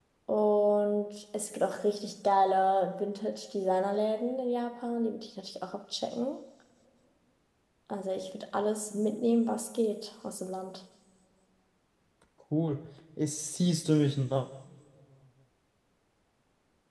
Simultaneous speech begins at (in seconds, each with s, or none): none